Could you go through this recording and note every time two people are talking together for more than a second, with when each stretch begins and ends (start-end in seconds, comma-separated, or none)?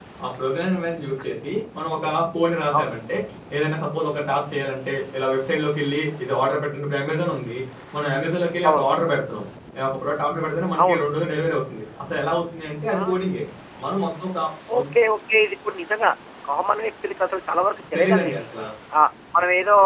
none